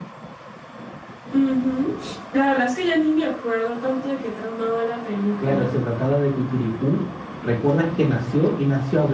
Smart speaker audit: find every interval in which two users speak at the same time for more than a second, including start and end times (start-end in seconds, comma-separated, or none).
none